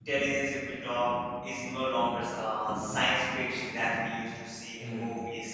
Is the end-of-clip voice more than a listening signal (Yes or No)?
No